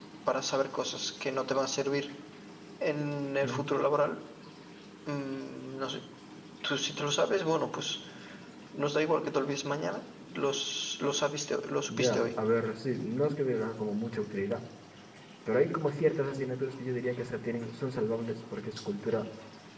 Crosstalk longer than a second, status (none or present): none